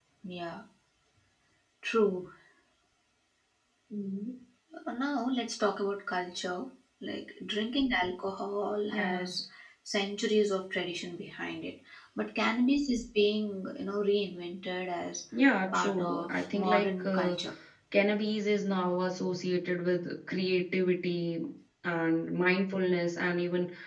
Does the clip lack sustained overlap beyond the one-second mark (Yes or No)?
No